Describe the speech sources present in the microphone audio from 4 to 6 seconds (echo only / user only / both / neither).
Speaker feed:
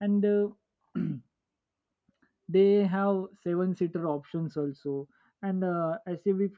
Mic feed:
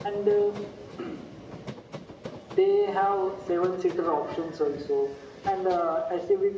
echo only